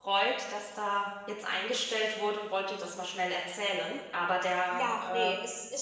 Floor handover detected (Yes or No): Yes